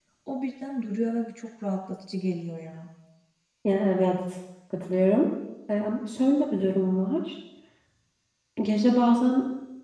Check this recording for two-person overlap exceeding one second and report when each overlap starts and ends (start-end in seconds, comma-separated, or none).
none